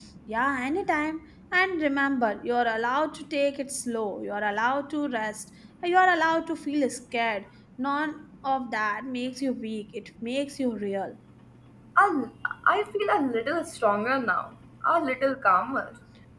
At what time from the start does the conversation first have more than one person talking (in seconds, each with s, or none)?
none